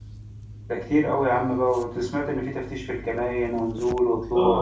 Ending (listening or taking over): taking over